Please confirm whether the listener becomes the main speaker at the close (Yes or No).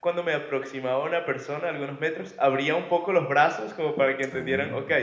No